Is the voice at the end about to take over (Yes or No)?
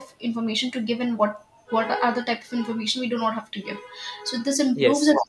No